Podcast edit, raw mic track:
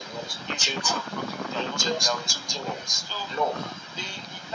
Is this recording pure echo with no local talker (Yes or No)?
Yes